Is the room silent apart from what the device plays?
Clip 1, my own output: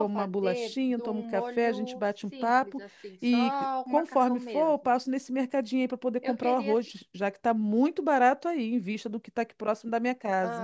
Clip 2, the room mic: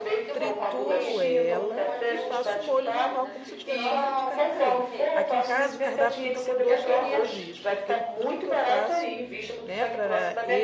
No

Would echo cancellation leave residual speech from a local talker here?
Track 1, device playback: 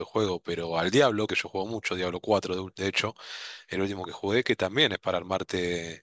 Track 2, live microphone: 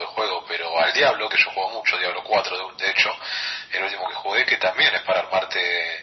No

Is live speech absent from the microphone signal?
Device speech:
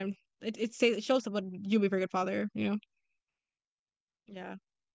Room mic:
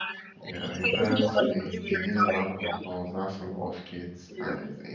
No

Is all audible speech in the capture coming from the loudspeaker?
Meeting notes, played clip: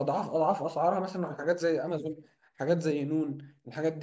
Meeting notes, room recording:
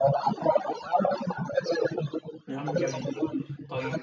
No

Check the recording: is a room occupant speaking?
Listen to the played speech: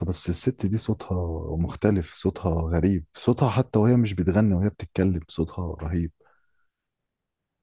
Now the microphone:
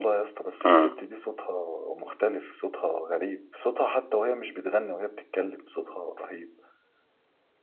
Yes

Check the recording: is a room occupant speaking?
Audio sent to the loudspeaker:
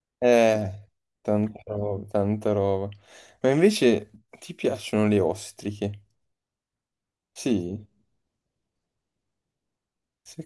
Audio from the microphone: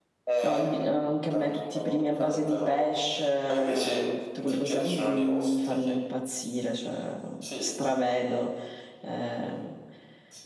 Yes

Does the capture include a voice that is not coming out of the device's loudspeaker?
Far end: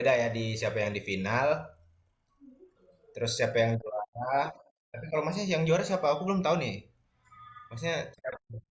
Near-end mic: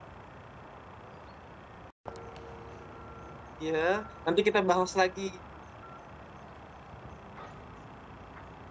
Yes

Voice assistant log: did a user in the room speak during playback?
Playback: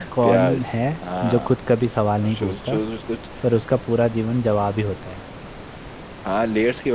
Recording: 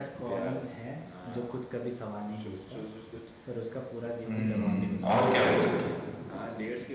Yes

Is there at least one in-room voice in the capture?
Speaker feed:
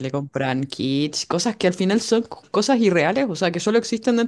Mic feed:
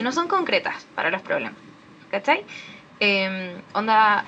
Yes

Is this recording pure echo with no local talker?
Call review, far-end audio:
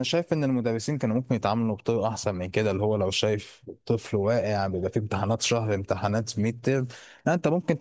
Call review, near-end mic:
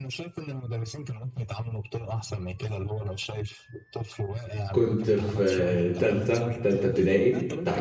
No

